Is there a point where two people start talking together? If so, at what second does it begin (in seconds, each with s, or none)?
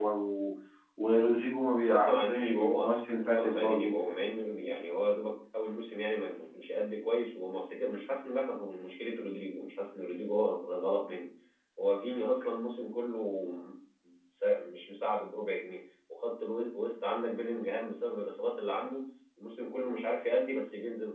1.9 s